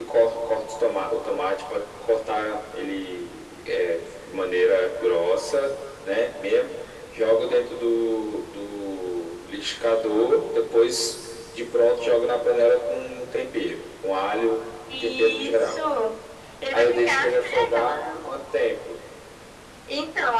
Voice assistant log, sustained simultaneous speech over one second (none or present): present